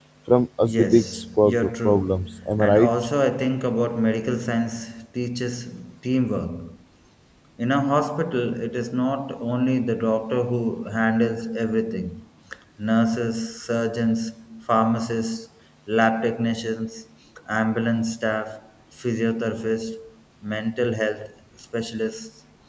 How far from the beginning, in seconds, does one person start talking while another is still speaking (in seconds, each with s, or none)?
0.7 s